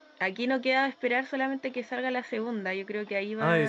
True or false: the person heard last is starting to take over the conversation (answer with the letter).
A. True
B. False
B